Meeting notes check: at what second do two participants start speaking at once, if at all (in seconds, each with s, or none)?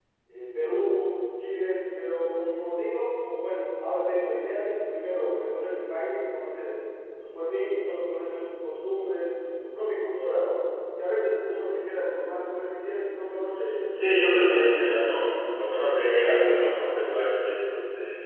13.9 s